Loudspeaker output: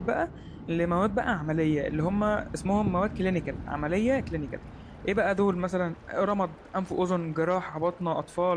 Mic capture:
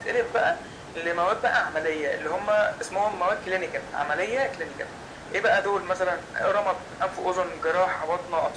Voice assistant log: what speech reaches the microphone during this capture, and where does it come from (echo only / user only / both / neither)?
echo only